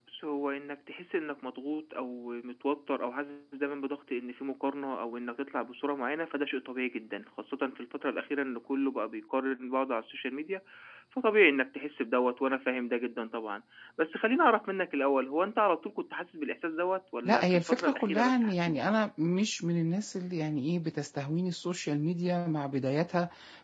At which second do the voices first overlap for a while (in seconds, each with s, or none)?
17.2 s